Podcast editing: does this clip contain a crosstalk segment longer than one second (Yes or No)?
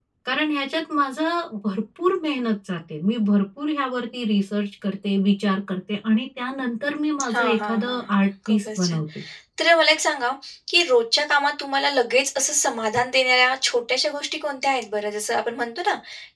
Yes